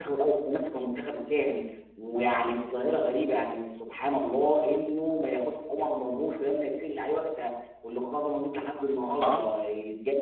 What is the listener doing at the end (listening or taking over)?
listening